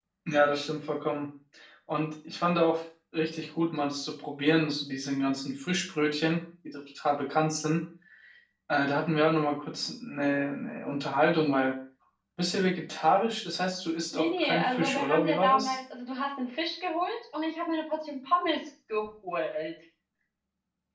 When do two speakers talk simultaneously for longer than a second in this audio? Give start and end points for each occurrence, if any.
14.1-15.8

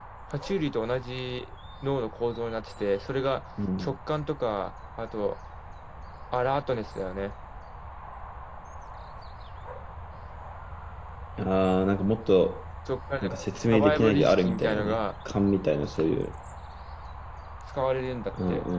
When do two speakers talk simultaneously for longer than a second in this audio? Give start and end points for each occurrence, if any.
13.7-15.0

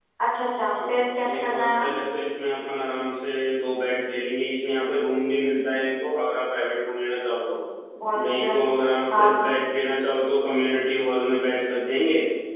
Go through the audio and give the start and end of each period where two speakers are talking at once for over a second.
0.6-1.9

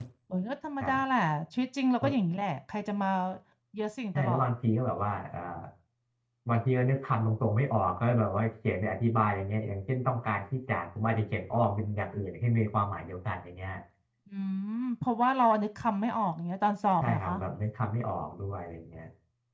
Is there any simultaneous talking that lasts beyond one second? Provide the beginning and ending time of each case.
none

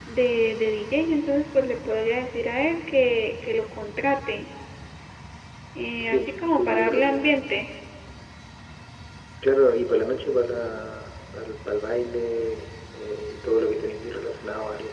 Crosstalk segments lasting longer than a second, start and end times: 6.0-7.4

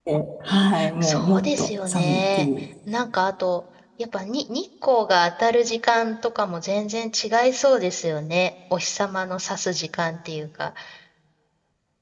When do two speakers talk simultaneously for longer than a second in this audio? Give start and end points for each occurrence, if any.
1.0-2.5

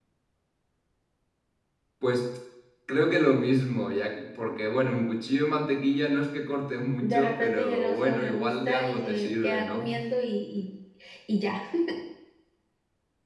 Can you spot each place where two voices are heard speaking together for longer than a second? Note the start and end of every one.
7.0-9.9

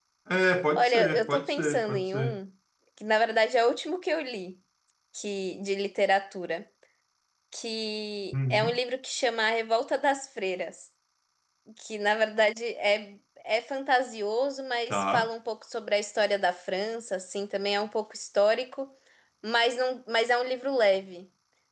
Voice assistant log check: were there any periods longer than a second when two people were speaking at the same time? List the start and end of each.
0.8-2.4

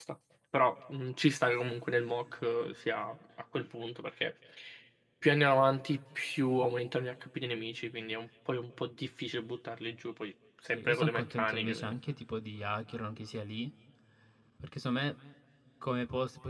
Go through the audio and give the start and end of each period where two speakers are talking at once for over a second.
10.7-11.9

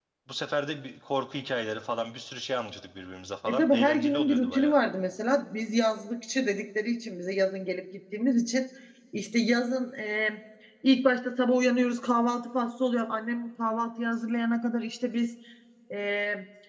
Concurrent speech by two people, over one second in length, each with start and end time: 3.5-4.7

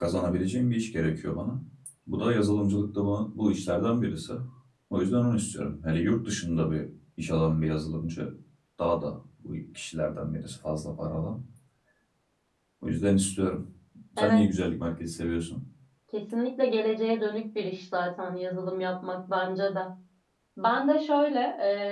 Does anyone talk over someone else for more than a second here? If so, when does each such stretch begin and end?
none

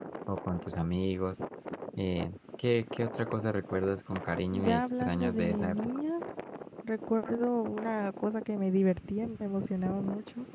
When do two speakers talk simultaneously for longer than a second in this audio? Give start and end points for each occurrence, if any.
4.5-5.8

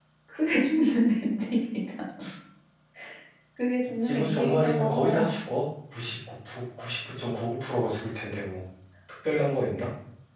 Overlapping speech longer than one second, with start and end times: 4.0-5.2

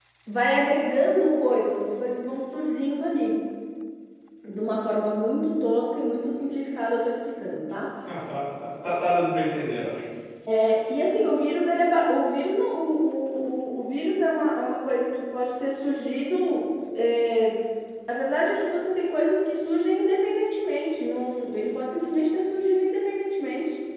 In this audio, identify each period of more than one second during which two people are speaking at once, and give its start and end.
none

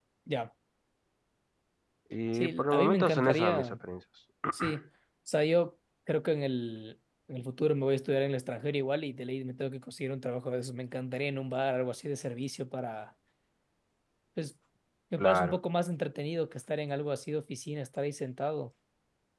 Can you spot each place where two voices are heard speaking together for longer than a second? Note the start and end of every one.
2.3-3.8

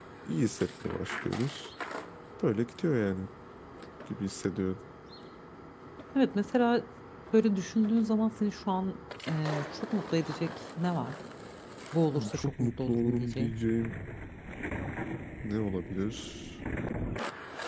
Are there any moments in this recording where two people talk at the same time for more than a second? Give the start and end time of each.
12.1-13.5

